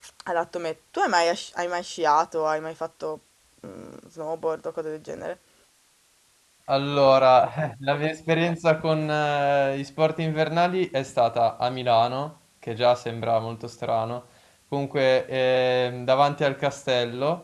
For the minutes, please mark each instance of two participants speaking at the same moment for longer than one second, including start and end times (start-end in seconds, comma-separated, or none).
none